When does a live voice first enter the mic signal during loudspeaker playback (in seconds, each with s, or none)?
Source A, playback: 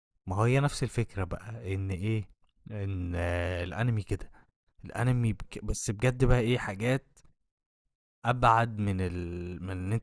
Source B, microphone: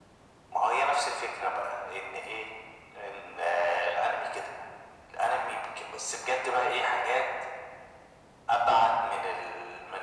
none